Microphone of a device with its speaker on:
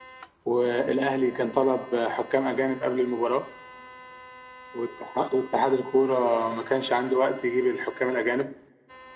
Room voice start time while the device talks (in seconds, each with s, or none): none